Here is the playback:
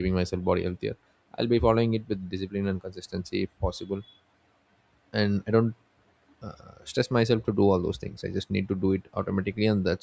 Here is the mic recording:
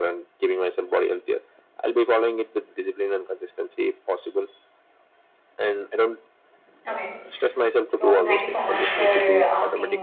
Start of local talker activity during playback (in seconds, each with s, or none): 6.9 s